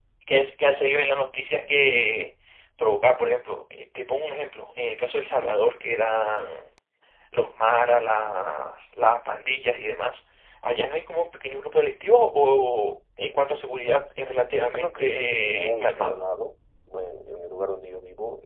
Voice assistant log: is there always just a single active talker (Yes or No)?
No